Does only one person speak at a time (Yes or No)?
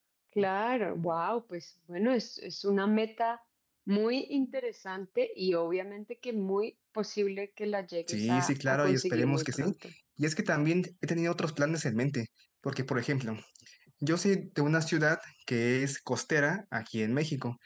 No